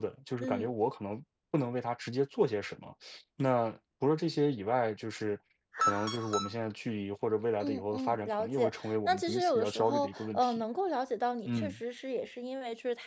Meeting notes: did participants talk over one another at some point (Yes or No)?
Yes